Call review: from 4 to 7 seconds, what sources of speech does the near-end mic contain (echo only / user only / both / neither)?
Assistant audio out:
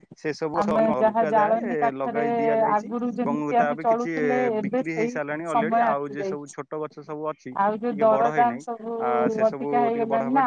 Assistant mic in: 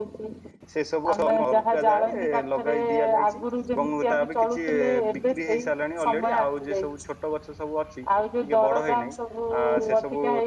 echo only